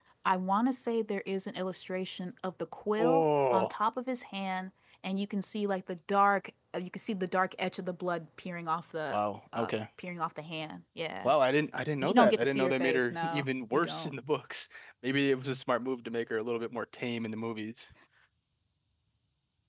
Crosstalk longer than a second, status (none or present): present